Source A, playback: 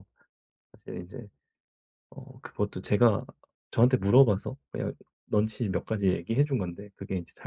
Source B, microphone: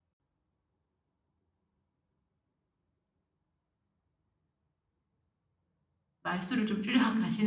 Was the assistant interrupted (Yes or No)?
Yes